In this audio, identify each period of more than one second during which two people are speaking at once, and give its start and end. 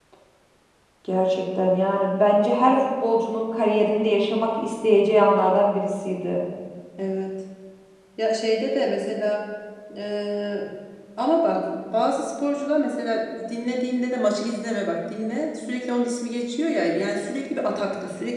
none

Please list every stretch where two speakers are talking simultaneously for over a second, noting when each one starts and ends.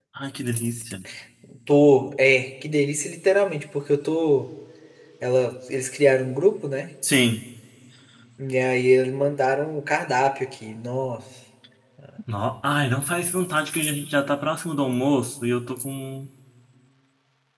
none

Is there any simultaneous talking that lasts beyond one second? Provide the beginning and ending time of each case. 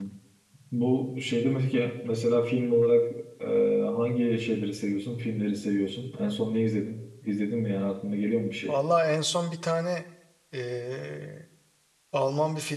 none

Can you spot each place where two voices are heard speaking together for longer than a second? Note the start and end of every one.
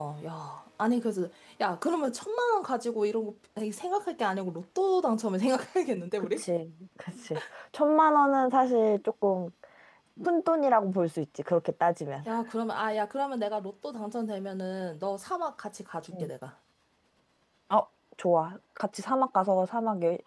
none

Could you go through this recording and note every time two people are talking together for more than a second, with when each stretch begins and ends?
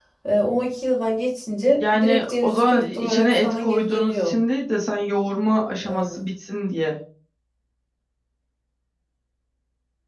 1.9-4.4

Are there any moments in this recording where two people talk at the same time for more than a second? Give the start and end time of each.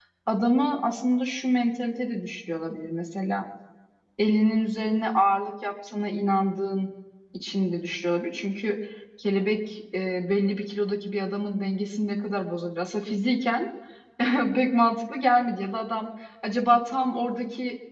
none

